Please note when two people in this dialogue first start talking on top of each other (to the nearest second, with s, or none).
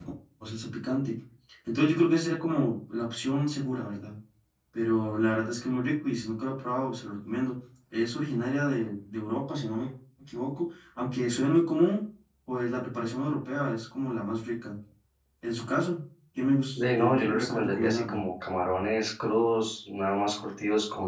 17 s